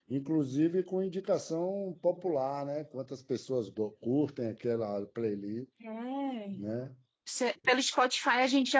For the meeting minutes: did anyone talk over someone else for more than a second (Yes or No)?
No